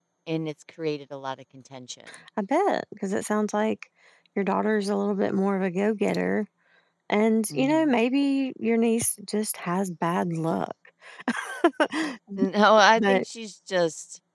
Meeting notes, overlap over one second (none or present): none